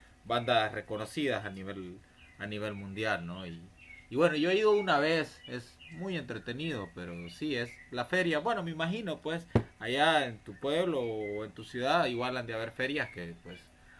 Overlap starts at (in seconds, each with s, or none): none